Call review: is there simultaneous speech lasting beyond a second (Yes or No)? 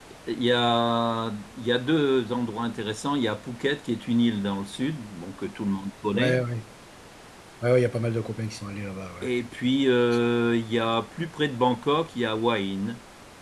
No